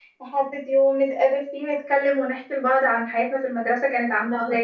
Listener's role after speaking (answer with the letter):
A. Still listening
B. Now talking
B